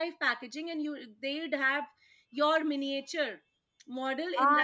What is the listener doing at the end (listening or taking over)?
taking over